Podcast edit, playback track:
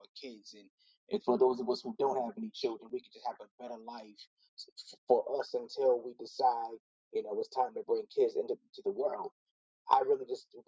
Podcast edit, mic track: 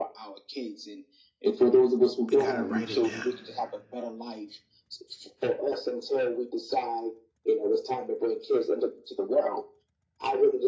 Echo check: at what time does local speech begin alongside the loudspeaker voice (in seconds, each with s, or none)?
2.3 s